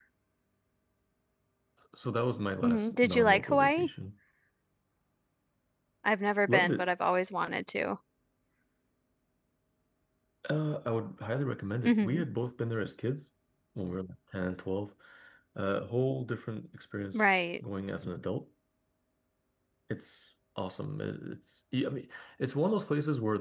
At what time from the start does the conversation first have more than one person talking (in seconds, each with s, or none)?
2.6 s